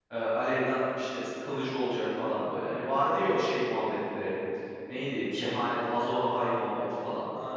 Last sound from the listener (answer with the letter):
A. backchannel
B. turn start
B